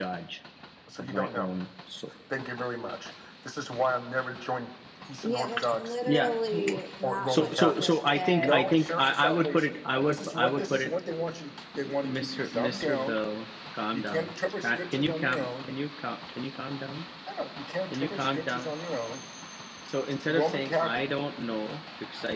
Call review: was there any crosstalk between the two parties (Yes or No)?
Yes